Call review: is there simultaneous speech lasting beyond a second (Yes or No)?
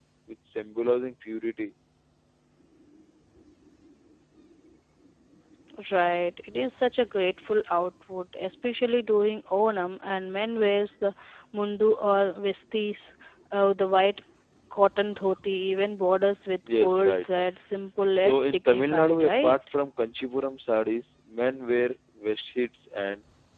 Yes